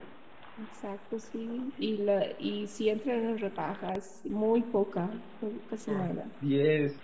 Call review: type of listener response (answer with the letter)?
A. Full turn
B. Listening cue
A